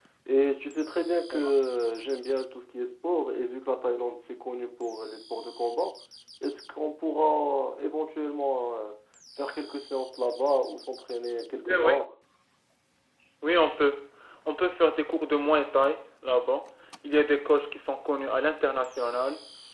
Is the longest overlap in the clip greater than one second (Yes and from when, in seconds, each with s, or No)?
No